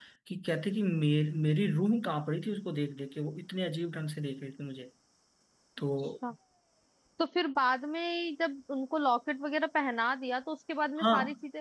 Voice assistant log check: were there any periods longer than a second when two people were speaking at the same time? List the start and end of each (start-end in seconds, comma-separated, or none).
none